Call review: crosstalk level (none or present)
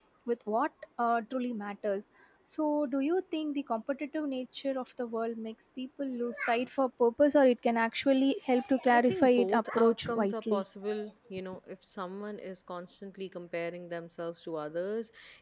present